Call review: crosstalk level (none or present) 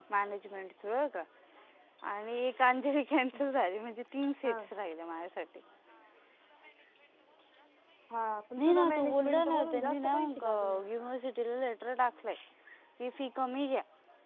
present